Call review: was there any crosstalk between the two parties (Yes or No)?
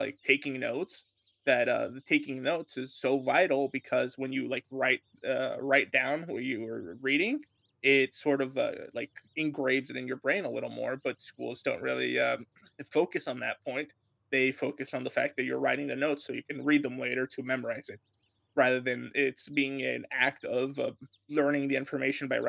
No